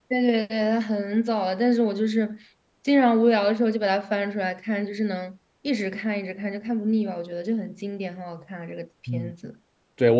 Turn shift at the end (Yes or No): Yes